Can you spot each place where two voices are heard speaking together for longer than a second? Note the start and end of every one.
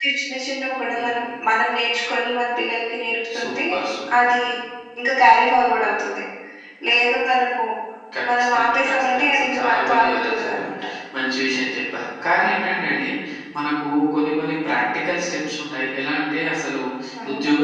8.4-10.6

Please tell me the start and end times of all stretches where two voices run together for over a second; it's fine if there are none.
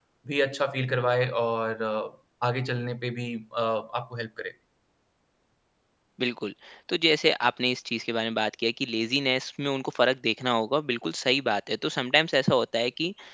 none

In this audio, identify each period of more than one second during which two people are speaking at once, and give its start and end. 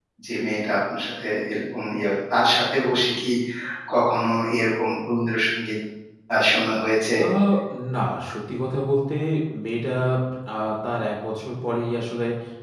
none

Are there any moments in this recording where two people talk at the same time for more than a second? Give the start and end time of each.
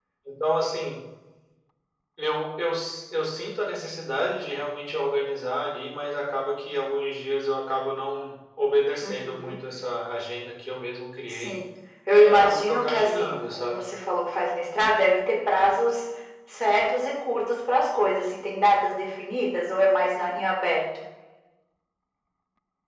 12.2-13.8

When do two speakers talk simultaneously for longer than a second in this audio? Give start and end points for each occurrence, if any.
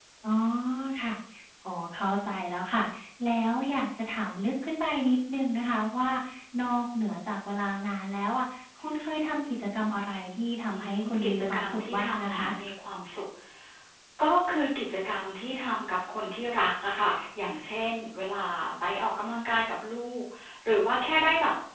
10.7-12.5

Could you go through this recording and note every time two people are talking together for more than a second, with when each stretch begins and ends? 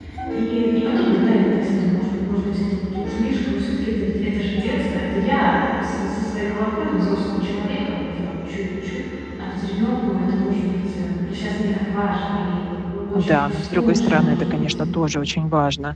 13.2-14.6

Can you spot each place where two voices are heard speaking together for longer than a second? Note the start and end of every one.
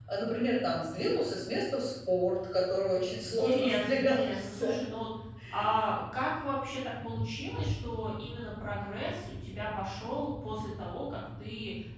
3.2-4.8

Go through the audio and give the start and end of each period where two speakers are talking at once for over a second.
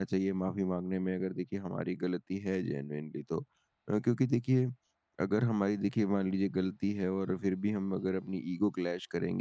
none

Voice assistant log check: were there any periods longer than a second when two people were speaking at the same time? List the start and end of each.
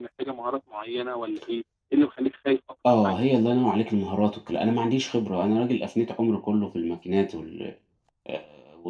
none

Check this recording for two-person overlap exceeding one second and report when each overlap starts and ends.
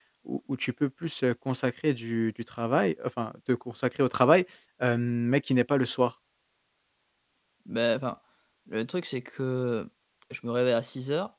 none

